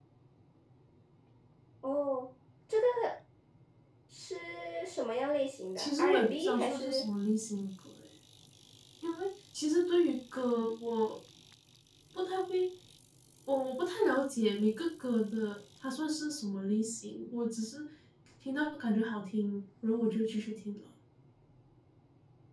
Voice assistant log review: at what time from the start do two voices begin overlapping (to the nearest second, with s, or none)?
6 s